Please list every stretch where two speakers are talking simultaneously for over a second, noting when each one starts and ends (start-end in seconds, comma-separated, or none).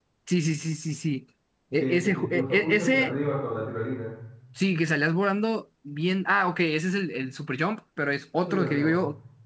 1.8-3.1